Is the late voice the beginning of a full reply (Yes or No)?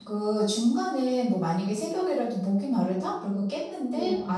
No